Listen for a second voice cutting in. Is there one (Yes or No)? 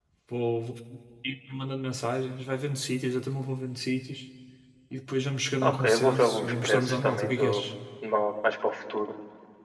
Yes